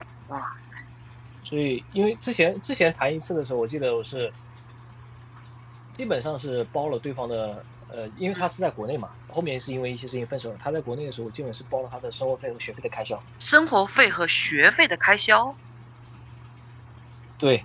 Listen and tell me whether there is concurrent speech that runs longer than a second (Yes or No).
No